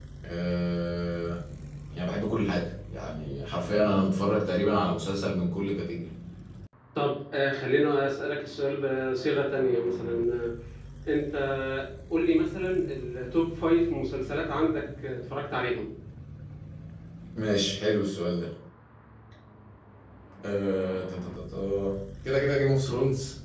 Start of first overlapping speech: none

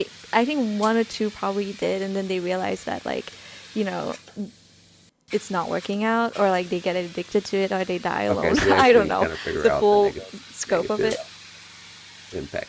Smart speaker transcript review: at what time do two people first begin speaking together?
8.3 s

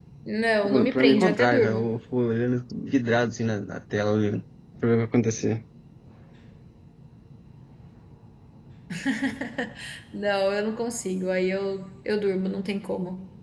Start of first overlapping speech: 0.6 s

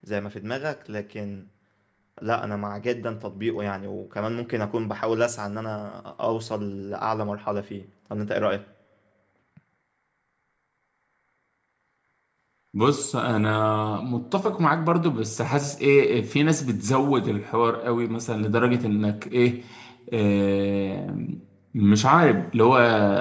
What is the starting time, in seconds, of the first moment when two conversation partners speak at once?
none

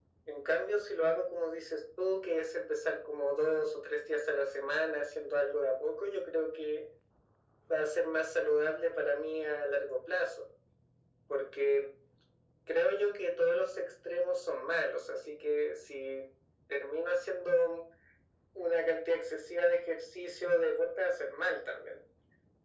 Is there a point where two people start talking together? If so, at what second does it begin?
none

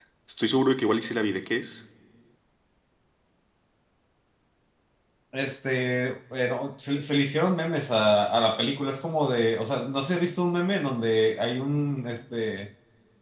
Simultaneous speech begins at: none

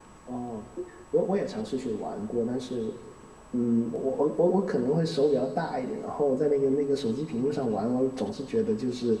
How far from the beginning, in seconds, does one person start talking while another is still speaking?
none

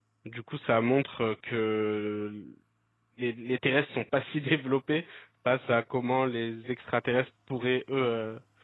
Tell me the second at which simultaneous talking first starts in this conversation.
none

